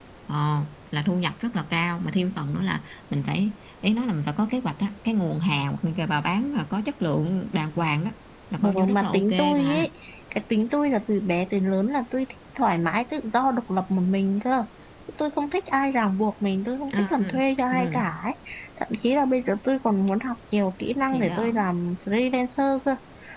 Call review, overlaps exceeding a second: present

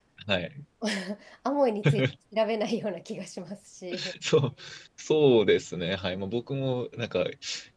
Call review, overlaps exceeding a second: none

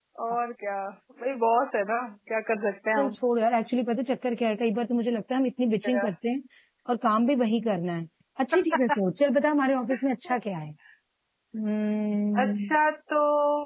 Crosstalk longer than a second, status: none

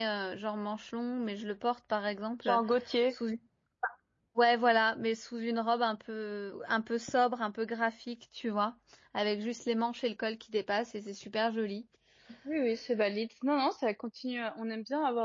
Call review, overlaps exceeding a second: none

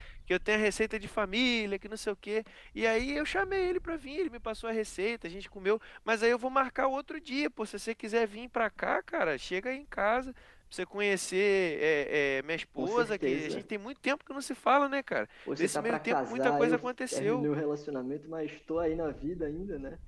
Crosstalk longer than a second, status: present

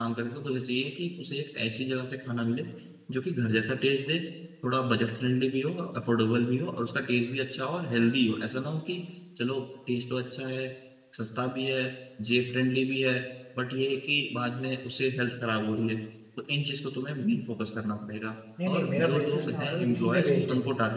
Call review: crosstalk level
present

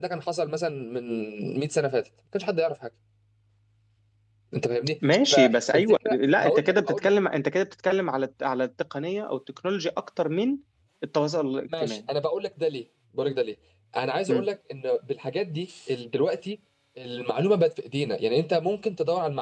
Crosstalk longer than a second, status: present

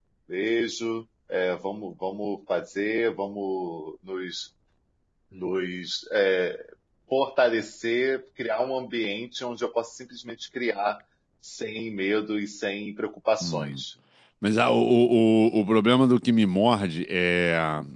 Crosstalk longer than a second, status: none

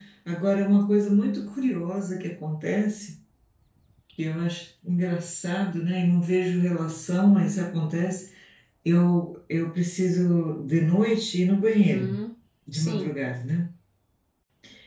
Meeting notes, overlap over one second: none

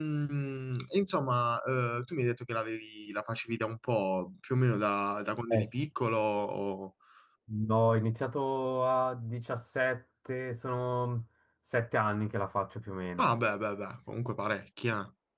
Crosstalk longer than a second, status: none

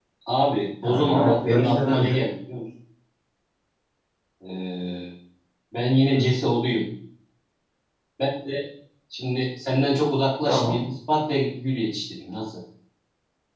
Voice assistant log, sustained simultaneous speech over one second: present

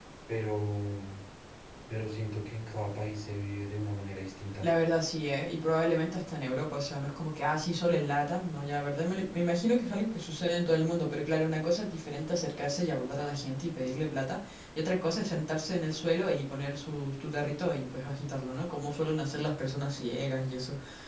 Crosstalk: none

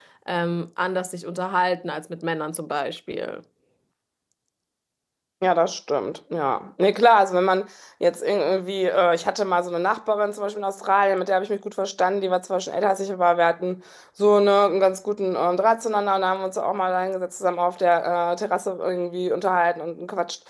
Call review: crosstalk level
none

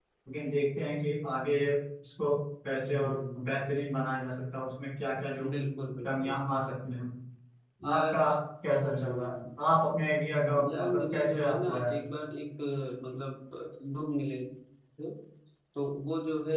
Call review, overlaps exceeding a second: present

